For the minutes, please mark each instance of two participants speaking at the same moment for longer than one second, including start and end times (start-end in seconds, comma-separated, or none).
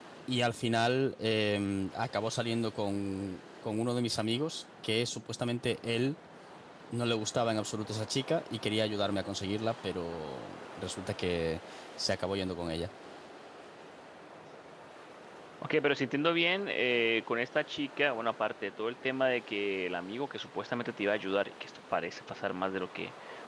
none